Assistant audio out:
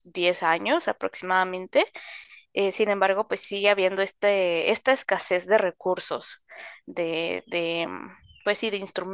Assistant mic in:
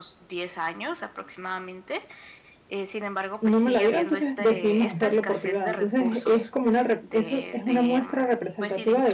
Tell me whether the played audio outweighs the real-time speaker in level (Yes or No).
No